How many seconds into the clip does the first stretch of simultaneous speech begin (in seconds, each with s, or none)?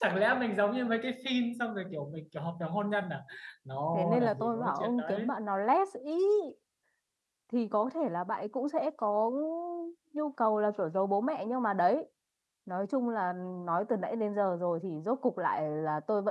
3.9 s